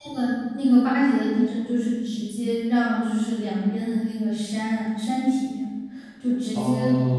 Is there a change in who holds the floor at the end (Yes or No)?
Yes